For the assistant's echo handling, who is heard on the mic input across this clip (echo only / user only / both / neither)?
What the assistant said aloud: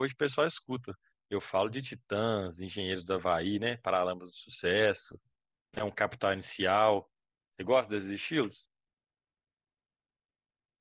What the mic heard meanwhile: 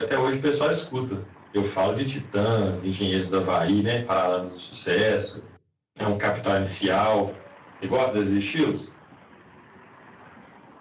echo only